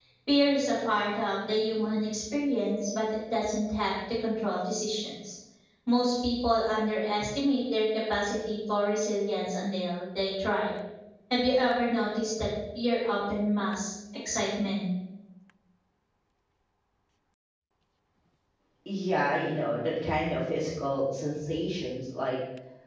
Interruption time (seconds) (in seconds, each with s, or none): none